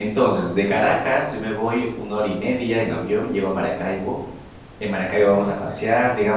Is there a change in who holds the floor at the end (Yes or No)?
No